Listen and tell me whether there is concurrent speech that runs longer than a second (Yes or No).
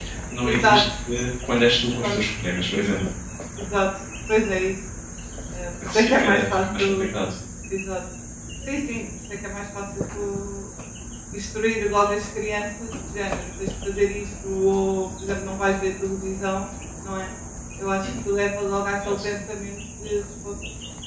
Yes